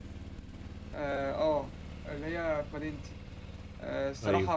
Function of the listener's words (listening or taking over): listening